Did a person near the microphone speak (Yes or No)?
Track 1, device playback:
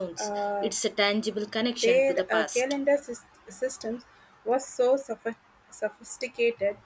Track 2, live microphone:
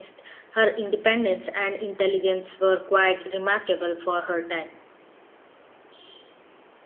Yes